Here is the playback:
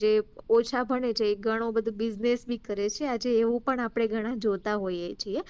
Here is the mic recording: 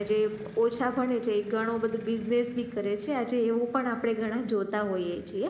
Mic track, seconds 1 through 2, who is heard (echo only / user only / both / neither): echo only